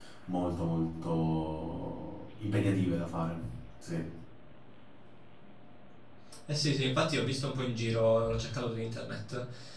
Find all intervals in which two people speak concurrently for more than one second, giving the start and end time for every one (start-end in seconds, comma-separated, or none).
none